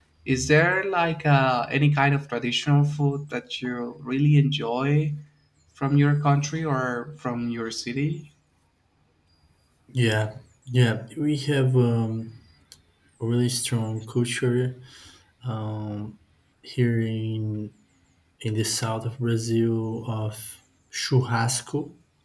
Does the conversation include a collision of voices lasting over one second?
No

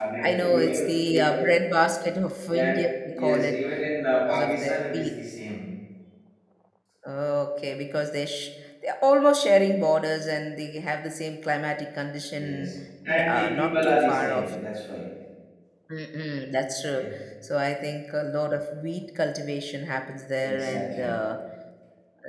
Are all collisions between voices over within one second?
No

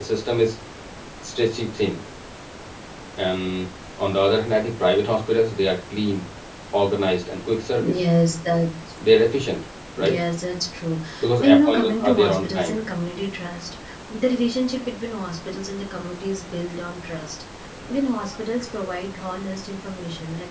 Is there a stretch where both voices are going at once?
Yes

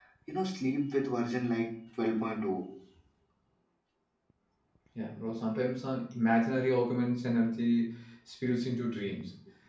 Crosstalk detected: No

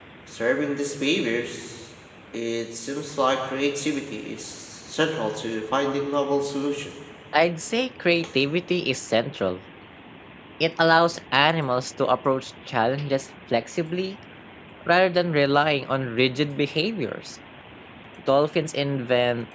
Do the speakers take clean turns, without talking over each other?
Yes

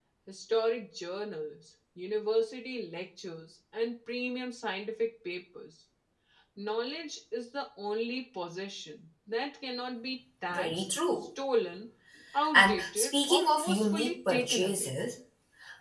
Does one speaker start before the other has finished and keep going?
Yes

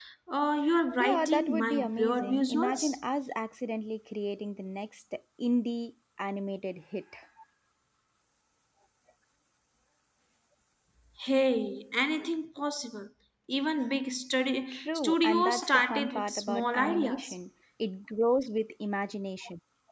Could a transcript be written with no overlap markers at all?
No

